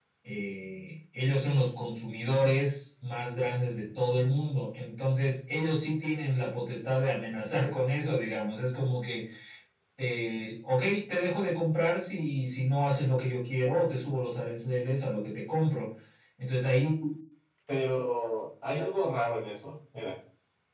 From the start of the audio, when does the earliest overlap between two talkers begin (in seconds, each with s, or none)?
none